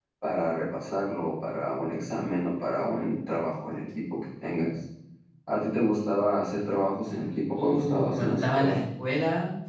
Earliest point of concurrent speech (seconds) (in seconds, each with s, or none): 7.5 s